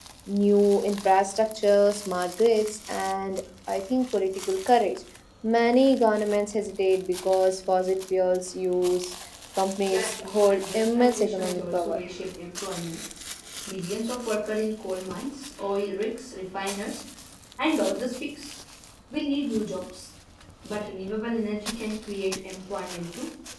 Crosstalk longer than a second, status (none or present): present